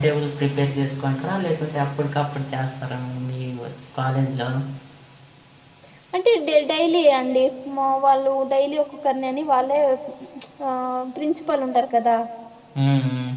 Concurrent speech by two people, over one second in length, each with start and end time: none

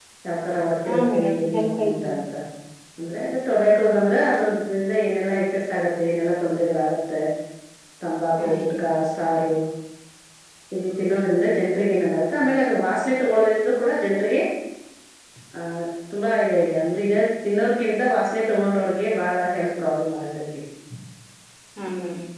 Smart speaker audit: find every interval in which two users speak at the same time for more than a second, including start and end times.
0.9-2.1

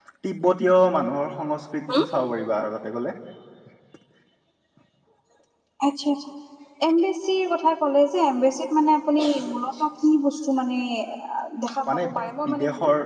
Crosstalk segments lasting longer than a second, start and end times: none

